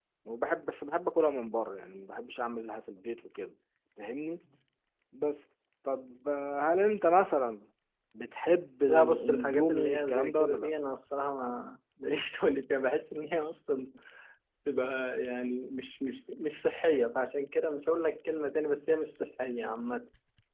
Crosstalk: present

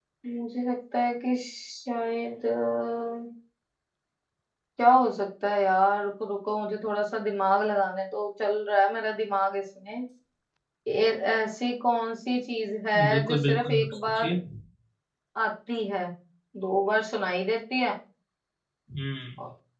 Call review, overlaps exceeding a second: present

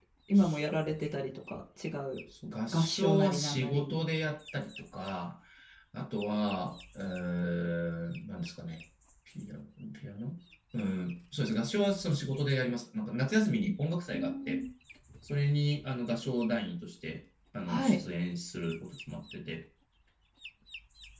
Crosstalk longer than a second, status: present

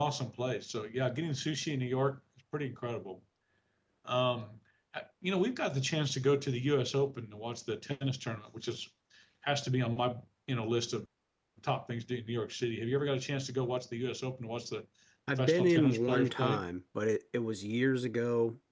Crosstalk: present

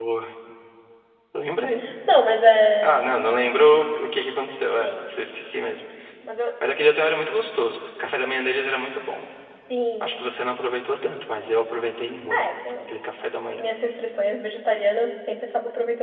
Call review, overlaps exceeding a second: none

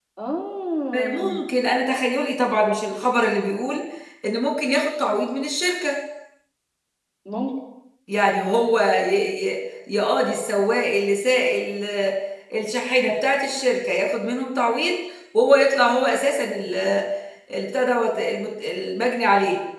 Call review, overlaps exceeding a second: none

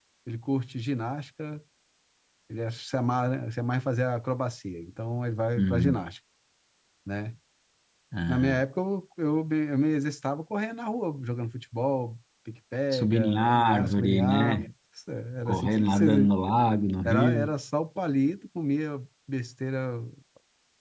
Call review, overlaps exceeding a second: present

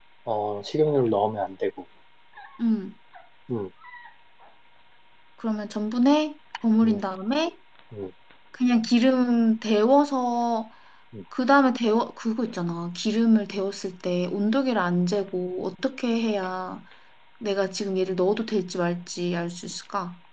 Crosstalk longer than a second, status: none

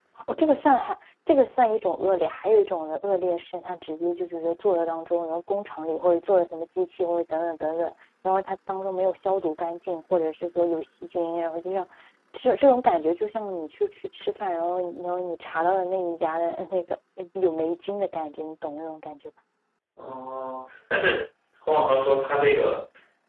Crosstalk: none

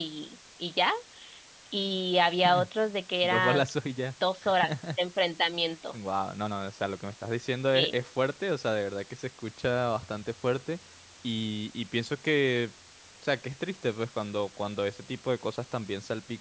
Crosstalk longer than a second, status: none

